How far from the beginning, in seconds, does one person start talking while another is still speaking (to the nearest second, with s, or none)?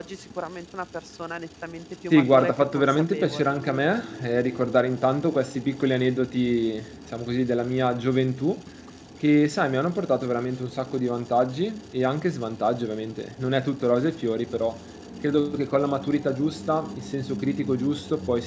2 s